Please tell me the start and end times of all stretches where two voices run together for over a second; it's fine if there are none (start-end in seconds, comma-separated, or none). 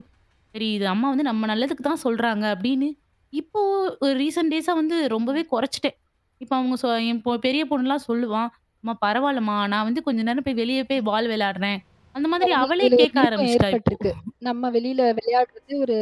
12.4-13.9